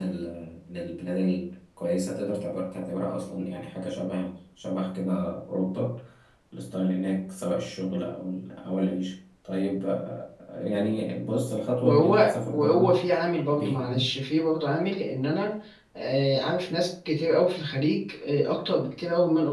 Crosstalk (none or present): present